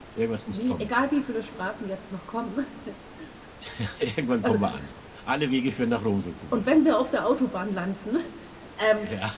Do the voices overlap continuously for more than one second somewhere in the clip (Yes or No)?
No